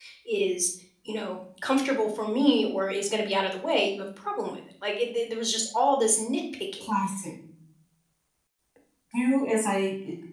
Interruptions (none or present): none